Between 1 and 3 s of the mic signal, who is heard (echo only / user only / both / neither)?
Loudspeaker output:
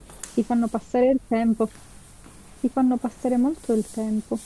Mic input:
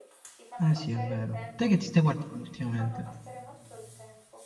both